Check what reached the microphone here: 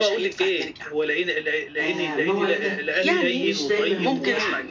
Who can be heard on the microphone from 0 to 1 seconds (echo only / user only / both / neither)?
echo only